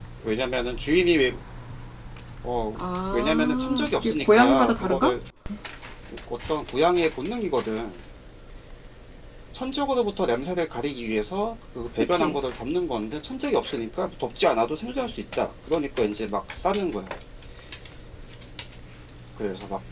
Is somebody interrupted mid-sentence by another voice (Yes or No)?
Yes